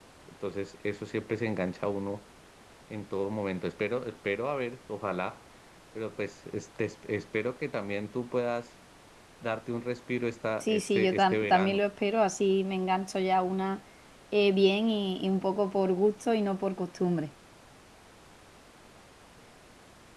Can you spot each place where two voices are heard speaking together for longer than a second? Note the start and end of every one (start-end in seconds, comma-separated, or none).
10.6-11.8